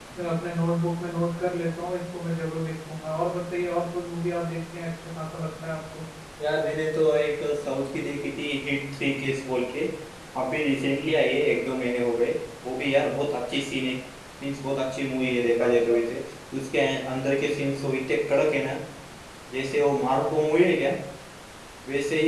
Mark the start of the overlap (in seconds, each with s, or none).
none